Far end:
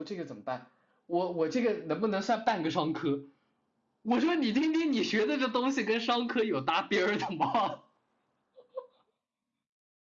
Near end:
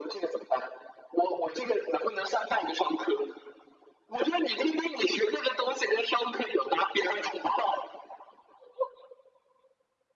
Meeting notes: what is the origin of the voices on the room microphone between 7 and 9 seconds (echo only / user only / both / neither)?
echo only